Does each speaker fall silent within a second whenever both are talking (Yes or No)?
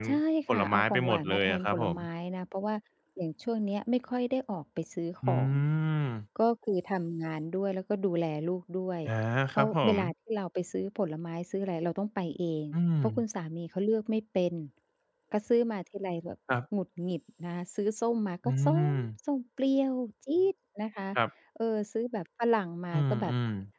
No